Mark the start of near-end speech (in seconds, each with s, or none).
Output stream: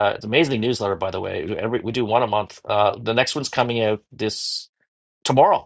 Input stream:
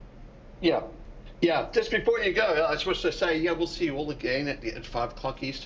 0.6 s